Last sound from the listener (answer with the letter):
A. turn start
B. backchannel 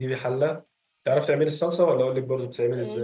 A